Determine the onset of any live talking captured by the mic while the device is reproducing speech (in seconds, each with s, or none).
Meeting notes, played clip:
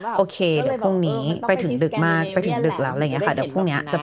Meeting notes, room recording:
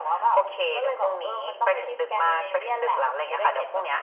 none